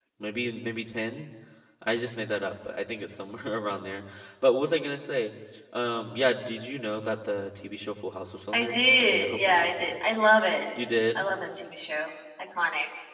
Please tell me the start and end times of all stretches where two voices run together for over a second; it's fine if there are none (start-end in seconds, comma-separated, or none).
8.5-9.9